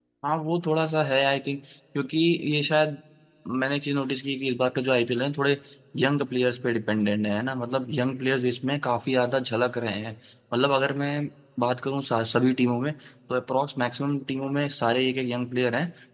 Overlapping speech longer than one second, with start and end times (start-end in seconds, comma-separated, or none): none